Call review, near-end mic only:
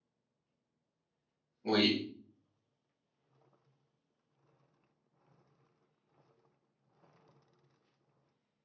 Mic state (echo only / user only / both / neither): user only